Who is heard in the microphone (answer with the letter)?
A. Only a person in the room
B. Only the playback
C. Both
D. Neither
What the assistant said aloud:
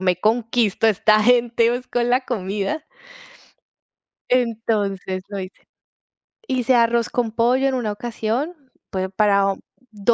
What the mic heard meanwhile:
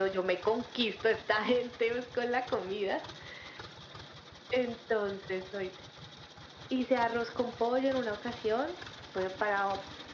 B